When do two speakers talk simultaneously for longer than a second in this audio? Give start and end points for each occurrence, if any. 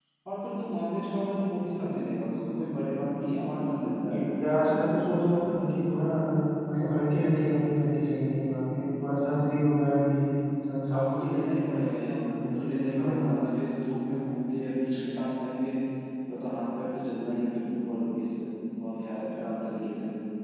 none

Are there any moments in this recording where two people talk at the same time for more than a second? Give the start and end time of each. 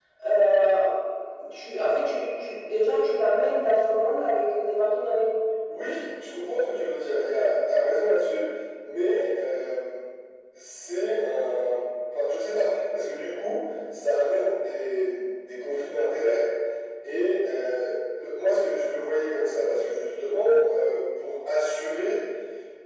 none

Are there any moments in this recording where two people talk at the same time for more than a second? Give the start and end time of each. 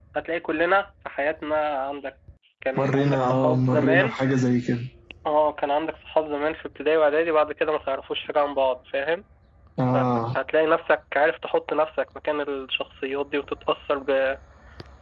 2.8-4.2

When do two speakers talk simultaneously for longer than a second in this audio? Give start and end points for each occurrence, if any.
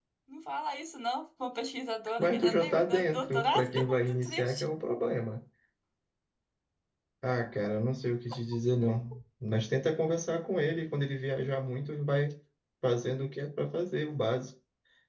2.2-4.6

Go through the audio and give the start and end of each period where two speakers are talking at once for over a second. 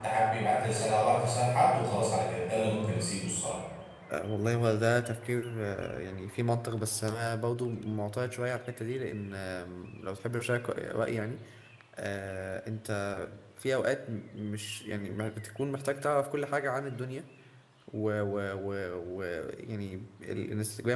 none

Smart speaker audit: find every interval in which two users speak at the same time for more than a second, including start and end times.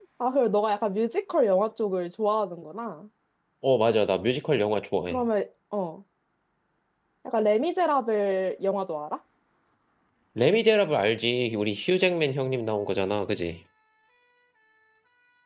none

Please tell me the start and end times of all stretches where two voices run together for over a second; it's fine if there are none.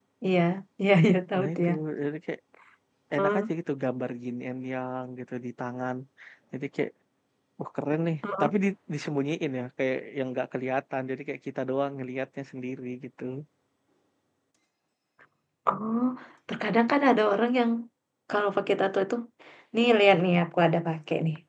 none

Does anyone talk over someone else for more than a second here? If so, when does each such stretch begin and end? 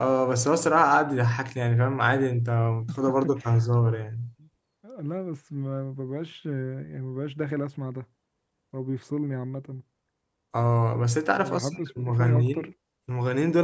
11.4-12.7

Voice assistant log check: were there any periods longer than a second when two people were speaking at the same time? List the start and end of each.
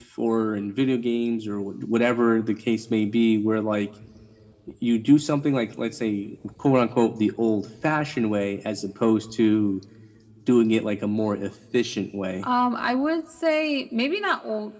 none

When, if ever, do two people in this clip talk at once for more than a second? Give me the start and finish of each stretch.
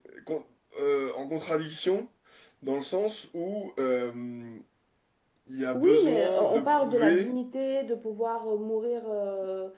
5.7-7.3

